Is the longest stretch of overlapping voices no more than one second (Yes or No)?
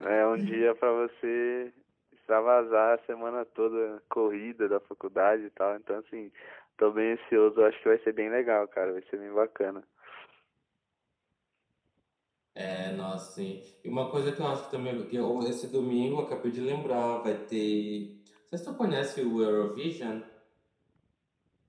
Yes